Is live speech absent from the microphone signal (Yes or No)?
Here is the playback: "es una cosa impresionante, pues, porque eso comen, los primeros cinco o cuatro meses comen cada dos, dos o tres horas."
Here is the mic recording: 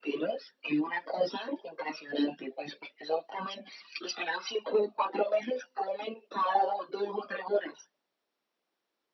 Yes